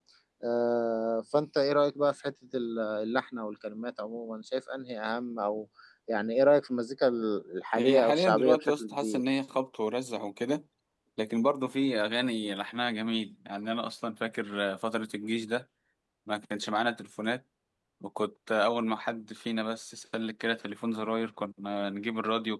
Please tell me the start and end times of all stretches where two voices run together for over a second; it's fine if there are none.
7.8-9.2

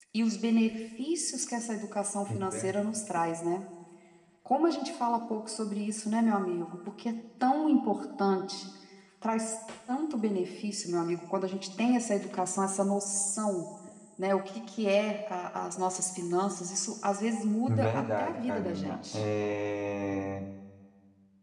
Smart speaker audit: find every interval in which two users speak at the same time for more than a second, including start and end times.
17.7-19.2

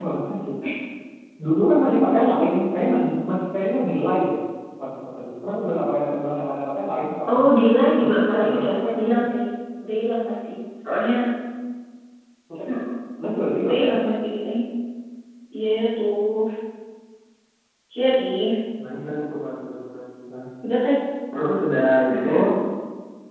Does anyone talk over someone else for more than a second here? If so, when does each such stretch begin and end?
8.0-9.3

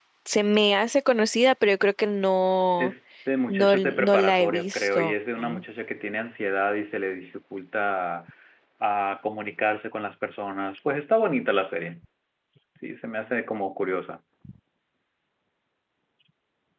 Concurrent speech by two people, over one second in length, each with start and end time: 3.5-5.1

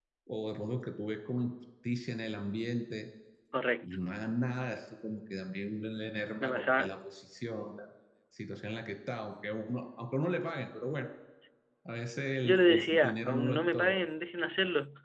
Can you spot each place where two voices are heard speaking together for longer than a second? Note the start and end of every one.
12.4-14.0

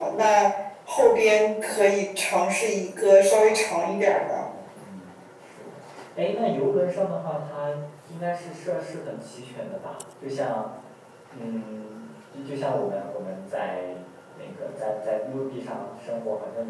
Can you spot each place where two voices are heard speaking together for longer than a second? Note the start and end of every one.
3.2-4.5

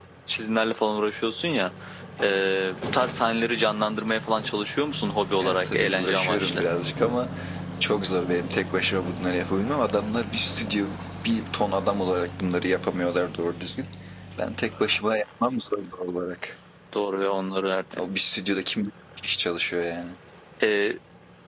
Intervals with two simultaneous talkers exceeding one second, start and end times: 5.4-6.6

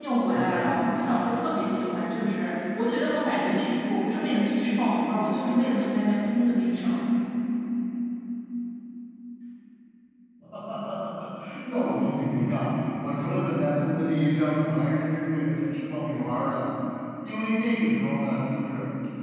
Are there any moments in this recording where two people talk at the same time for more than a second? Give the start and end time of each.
none

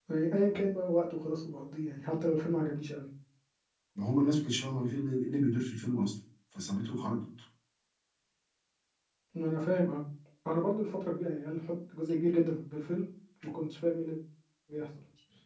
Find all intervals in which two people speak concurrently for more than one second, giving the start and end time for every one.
none

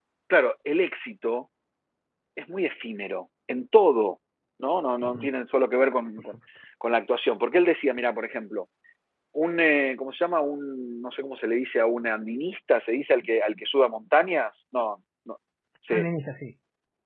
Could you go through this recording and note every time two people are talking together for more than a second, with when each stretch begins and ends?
none

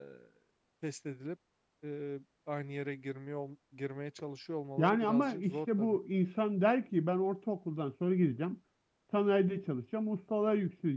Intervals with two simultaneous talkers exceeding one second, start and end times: 4.8-6.0

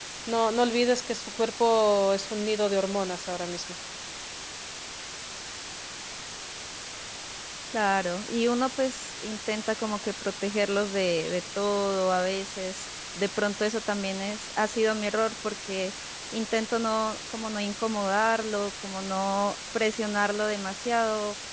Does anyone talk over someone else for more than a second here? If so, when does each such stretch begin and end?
none

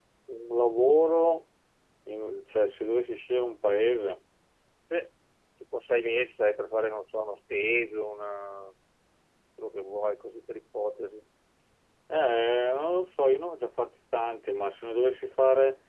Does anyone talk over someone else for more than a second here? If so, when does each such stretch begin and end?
none

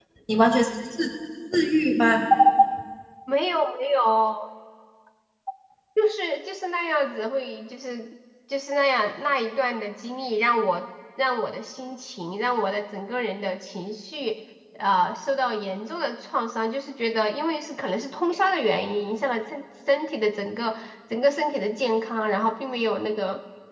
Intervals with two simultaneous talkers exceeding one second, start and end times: none

